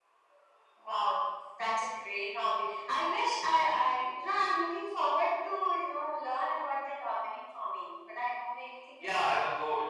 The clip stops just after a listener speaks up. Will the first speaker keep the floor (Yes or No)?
No